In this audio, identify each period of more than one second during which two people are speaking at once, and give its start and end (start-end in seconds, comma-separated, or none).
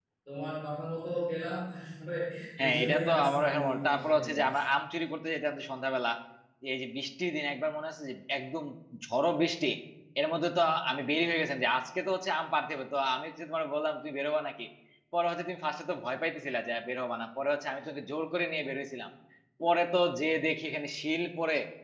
2.6-4.6